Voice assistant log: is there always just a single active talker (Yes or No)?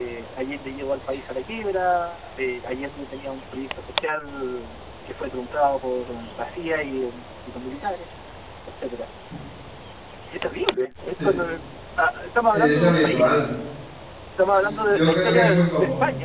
No